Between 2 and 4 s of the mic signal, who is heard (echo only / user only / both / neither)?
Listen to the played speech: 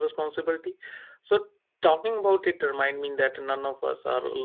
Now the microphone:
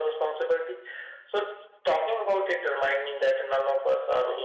echo only